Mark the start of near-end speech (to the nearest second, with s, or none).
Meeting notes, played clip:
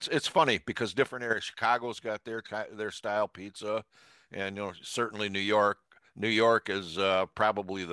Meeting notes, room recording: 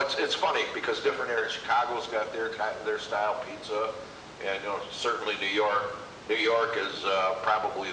none